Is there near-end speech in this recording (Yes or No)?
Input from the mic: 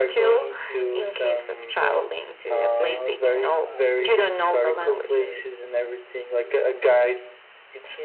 Yes